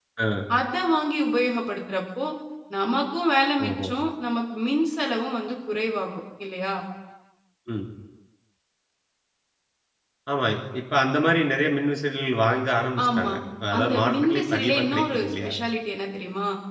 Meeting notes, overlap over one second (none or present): present